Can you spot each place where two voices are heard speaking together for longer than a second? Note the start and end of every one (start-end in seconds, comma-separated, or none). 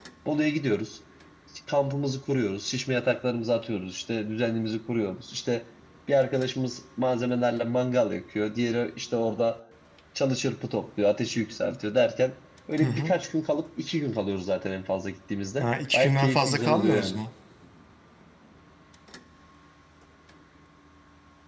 15.6-17.2